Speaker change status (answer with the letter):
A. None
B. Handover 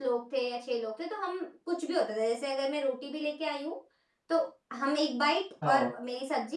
A